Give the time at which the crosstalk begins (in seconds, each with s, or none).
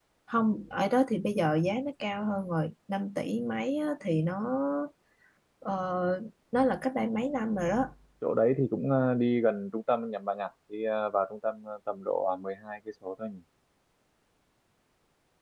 none